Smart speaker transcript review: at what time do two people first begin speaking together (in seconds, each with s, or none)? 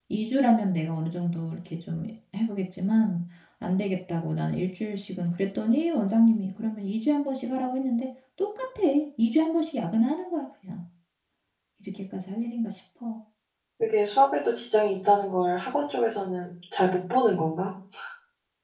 none